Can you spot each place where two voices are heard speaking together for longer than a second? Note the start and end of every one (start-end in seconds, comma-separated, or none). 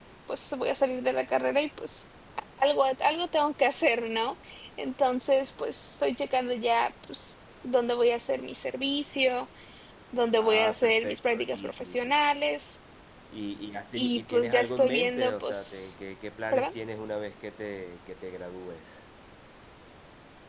10.4-12.2, 14.0-16.0